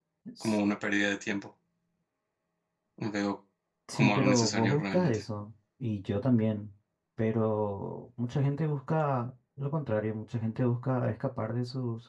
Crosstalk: present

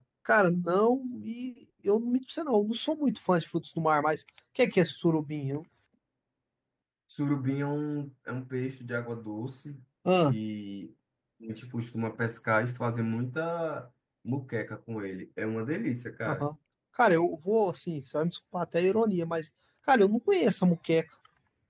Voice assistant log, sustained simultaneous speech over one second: none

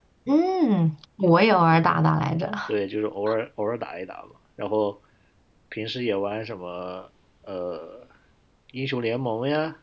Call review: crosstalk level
none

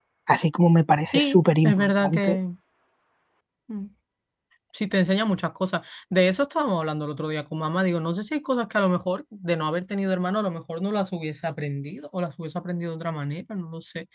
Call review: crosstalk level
present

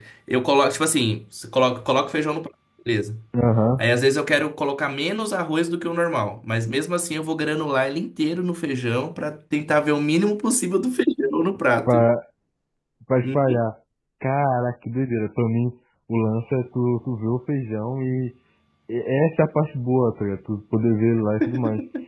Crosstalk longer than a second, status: none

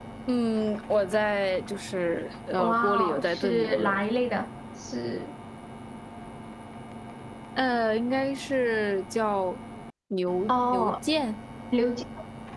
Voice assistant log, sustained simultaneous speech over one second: present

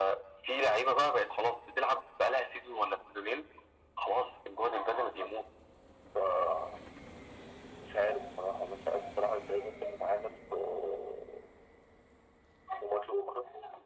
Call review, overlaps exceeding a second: none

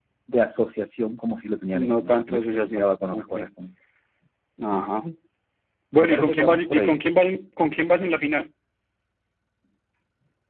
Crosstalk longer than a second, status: present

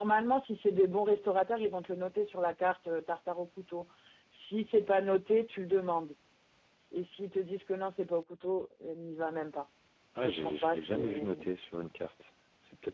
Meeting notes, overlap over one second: present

